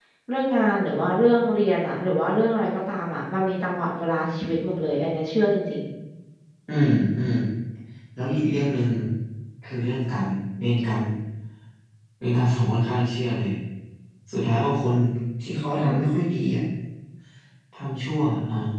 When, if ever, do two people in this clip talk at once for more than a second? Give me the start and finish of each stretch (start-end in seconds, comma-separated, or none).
none